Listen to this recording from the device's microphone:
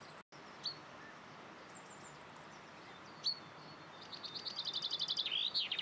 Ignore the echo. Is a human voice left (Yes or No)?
No